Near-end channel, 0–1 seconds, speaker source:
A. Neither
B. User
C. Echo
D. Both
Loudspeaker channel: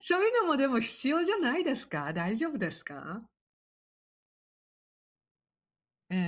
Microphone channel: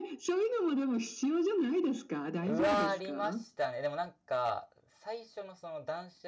C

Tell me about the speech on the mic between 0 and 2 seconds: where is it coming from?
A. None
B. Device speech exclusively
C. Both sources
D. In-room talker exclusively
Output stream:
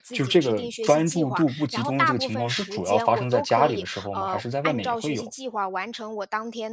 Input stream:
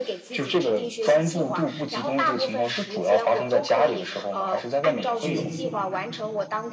B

